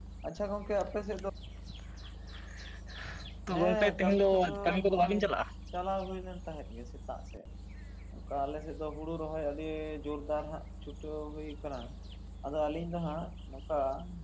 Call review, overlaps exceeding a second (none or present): present